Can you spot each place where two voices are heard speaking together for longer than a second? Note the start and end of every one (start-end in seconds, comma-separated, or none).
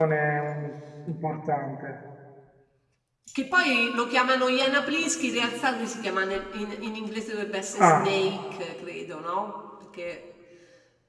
none